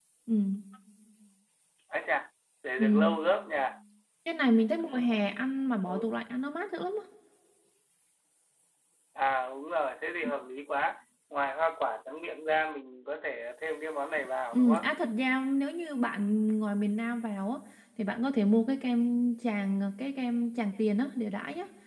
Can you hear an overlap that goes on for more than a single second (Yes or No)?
No